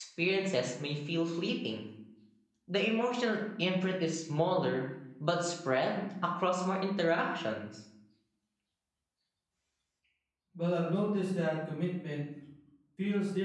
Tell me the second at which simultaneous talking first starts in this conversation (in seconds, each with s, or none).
none